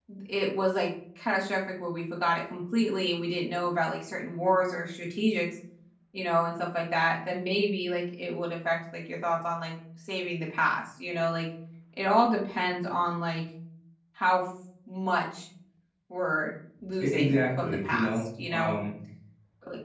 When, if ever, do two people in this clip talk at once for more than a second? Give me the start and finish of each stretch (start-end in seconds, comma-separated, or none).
17.0-18.8